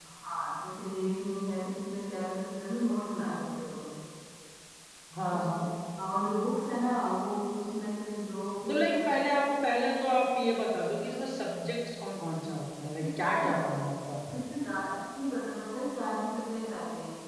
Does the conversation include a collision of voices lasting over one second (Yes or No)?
No